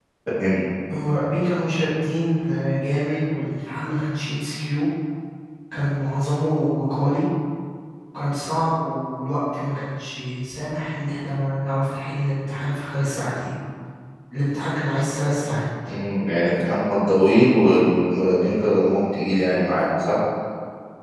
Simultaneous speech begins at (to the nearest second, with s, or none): none